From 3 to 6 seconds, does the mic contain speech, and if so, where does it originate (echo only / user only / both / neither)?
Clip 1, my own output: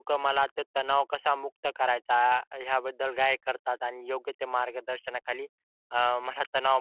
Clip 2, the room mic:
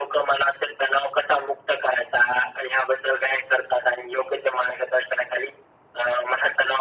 echo only